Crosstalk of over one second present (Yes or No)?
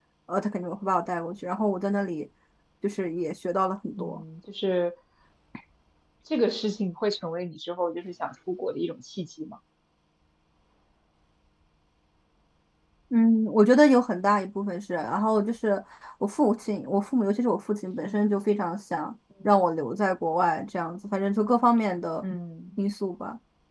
No